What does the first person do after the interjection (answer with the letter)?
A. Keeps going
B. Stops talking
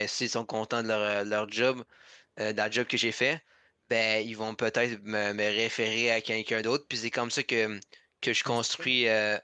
A